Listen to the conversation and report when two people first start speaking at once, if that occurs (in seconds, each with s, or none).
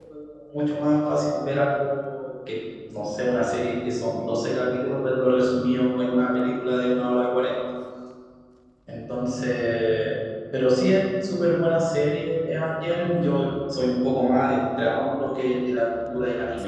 none